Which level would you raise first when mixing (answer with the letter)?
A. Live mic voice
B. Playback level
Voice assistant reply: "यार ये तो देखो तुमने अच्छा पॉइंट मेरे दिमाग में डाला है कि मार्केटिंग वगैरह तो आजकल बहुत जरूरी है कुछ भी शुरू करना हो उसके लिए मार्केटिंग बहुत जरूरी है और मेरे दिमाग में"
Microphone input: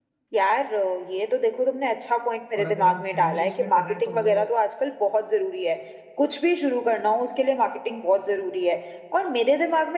A